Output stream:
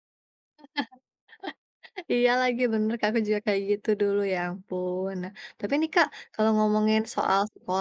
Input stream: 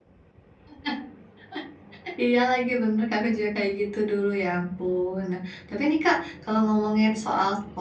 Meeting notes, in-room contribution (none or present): none